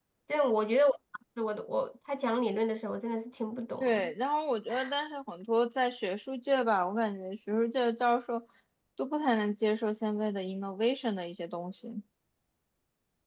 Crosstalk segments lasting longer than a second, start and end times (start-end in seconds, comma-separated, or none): none